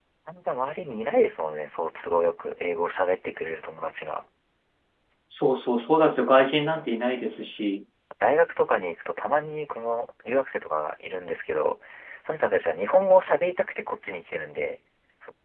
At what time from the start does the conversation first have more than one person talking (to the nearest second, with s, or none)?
none